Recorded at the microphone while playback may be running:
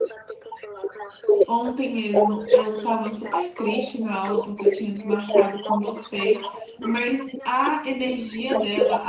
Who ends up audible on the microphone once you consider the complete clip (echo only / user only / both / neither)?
both